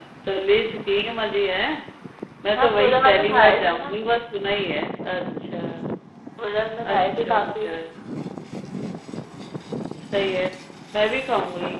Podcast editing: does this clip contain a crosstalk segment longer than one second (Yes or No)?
Yes